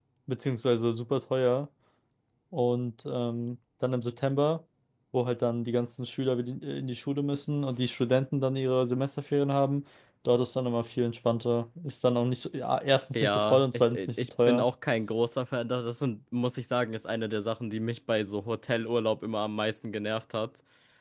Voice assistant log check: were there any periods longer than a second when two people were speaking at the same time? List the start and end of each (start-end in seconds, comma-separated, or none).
13.1-14.7